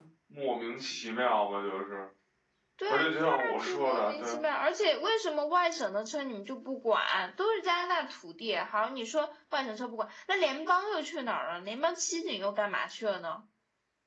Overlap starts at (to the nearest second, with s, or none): 3 s